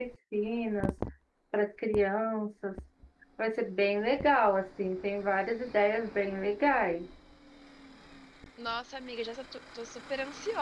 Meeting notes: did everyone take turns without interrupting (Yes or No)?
Yes